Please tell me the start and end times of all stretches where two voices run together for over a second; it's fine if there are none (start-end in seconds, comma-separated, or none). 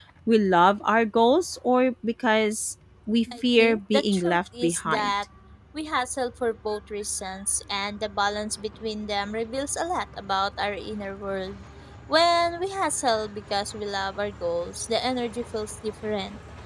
3.3-5.1